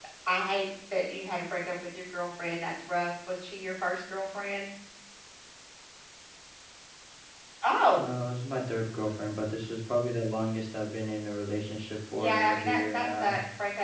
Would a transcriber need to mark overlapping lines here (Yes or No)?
Yes